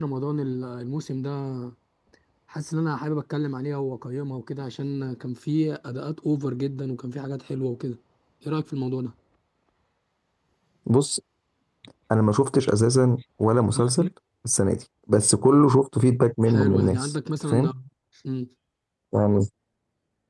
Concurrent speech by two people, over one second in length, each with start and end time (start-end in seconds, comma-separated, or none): 16.5-17.7